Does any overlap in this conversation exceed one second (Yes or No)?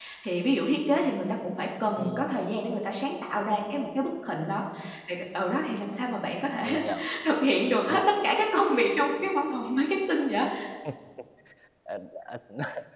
No